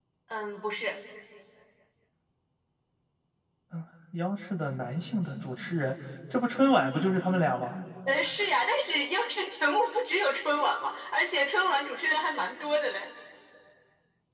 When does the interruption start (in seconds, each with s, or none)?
none